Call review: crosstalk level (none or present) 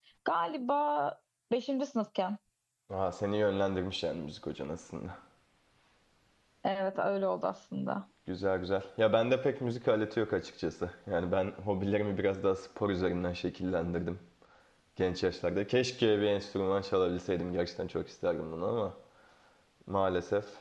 none